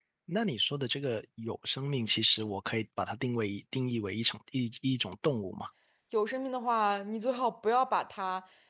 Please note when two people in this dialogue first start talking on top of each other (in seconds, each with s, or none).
none